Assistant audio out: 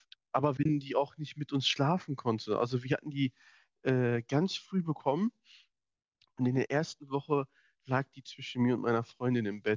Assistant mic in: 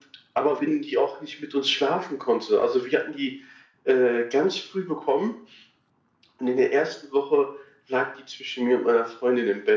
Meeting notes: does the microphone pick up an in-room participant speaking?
No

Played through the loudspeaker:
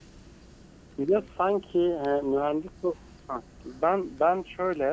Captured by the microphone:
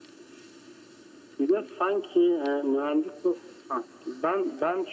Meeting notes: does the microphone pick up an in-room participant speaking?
No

